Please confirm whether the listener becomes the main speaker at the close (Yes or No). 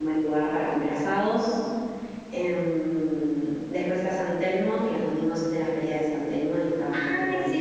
Yes